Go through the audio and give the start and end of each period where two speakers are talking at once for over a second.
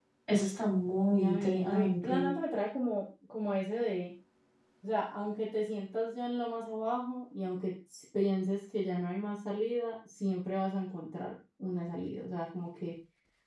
1.1-2.4

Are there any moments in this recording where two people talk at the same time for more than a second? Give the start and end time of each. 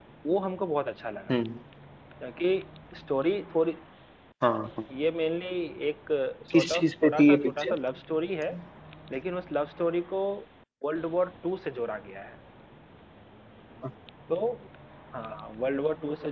6.5-7.8

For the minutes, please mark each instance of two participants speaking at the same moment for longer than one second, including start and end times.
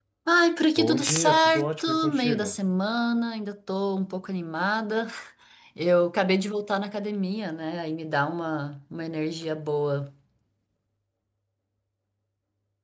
0.8-2.6

